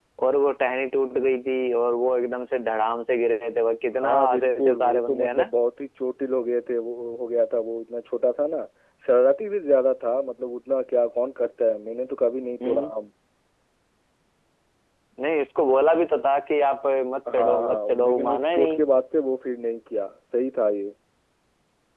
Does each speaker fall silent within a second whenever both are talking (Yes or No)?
No